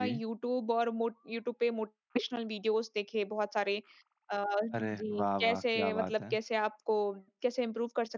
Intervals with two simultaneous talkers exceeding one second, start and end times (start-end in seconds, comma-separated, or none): 4.7-6.4